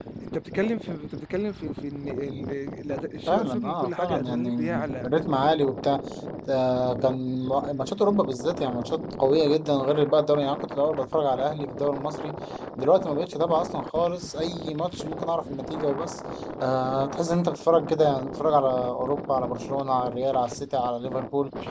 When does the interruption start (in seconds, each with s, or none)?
3.3 s